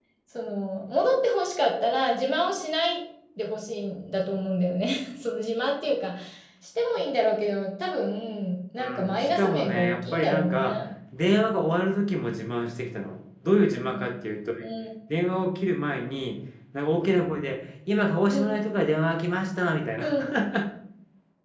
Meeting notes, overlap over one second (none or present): present